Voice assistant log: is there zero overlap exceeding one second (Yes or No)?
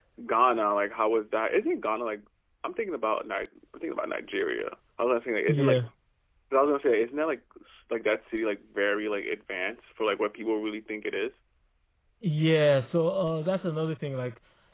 Yes